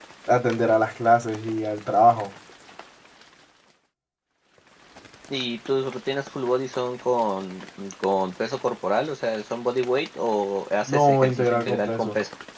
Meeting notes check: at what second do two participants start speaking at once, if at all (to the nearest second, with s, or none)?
11 s